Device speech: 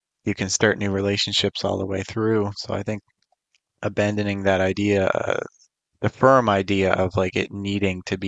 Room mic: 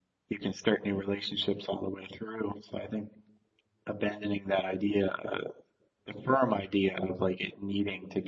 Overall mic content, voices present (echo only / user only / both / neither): echo only